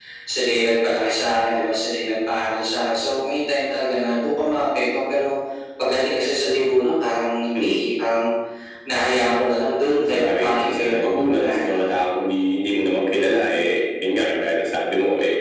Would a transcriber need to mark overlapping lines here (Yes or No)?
Yes